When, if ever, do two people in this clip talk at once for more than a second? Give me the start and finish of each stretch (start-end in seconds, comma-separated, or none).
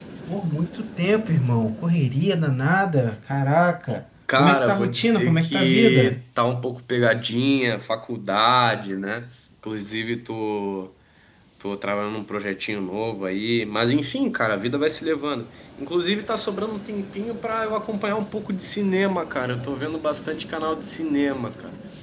4.4-6.2